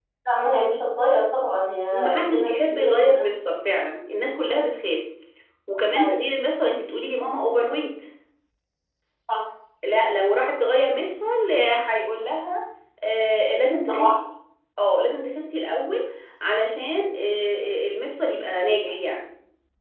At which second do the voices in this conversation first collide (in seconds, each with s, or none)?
1.9 s